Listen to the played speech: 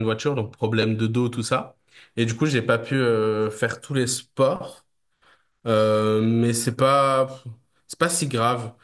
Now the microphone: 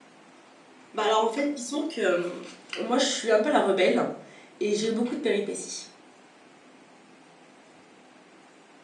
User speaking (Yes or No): Yes